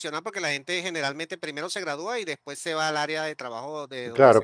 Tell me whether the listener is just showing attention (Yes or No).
No